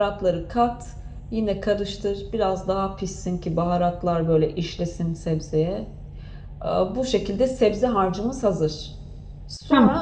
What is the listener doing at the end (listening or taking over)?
listening